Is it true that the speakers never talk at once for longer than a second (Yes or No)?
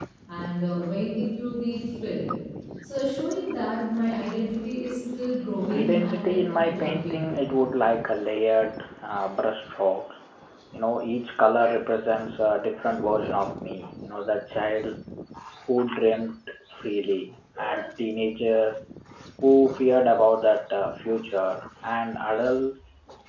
No